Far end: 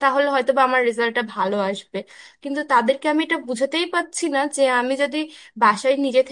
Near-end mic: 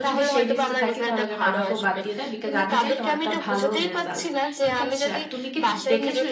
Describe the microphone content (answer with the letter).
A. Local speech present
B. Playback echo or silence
A